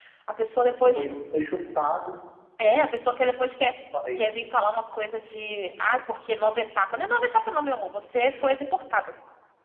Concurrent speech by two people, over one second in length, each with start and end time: none

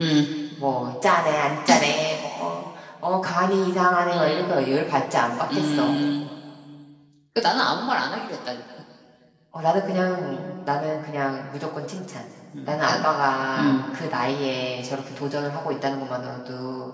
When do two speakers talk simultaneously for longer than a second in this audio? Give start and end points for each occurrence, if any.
none

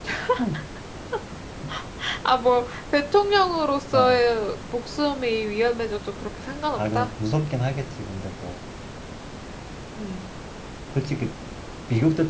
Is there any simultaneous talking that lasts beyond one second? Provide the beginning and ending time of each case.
none

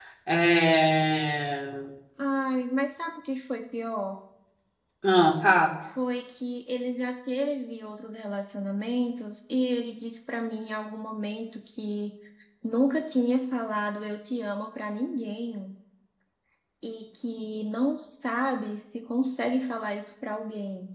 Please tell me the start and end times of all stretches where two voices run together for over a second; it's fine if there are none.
none

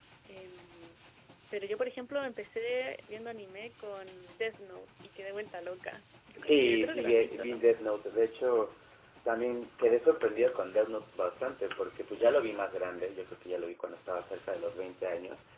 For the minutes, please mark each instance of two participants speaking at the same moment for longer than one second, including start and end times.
6.4-7.7

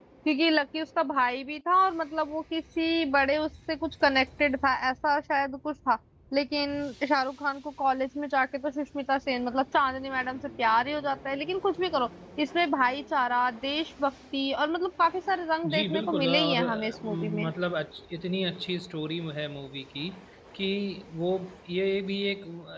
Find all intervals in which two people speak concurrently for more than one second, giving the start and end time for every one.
15.7-17.5

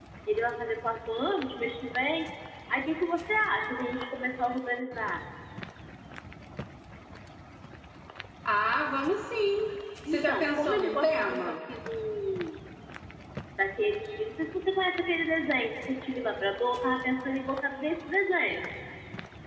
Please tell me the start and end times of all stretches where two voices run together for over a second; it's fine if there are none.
10.1-11.5

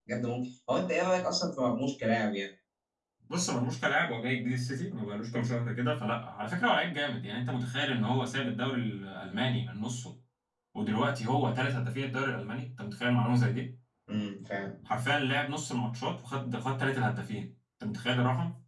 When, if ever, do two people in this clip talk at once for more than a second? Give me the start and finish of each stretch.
none

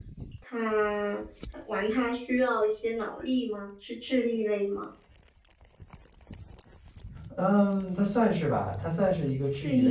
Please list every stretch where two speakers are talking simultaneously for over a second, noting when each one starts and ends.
none

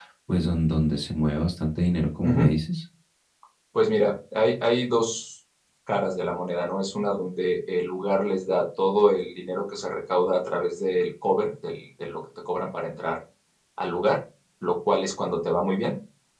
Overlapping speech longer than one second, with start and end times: none

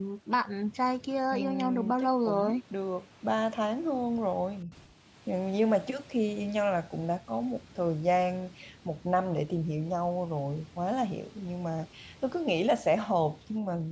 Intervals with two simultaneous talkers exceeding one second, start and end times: 1.3-2.6

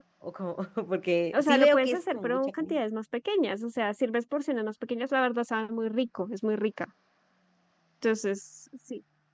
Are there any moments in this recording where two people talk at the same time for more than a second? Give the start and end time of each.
1.3-2.8

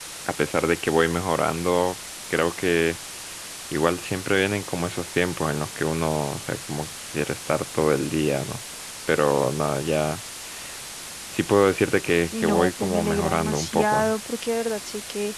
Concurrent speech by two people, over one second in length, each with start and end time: 12.3-14.1

